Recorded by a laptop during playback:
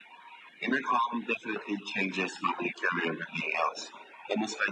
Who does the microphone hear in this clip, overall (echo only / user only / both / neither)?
echo only